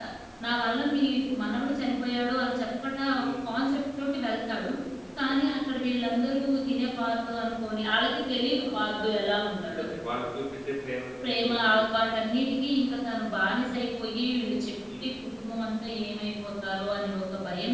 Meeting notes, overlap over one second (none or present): none